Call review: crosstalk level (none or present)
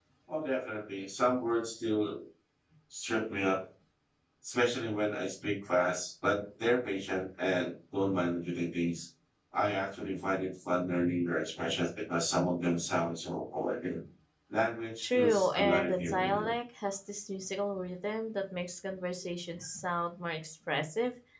present